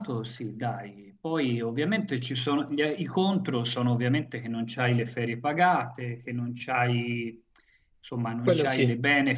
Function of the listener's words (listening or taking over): listening